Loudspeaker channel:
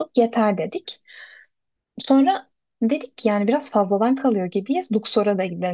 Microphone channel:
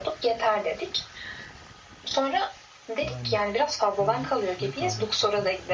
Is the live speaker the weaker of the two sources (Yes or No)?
Yes